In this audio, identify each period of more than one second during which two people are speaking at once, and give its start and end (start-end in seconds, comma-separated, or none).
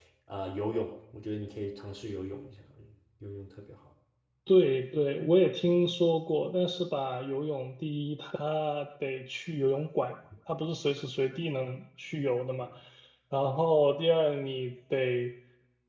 none